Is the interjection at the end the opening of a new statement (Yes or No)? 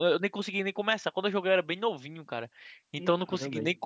No